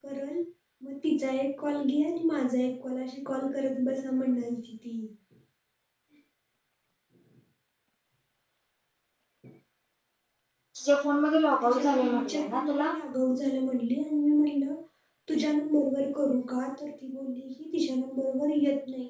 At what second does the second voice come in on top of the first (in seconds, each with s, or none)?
11.6 s